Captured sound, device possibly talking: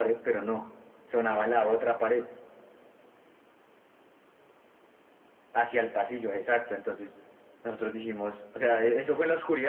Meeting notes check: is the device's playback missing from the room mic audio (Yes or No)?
No